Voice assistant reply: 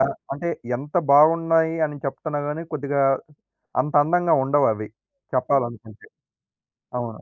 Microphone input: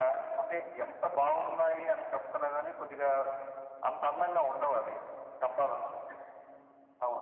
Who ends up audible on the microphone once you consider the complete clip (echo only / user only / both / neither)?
echo only